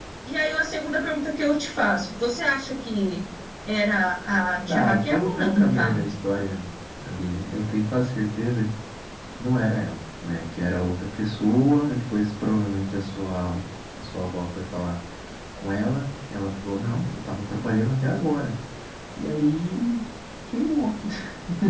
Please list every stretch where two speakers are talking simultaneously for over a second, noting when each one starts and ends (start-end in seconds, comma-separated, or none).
4.7-6.0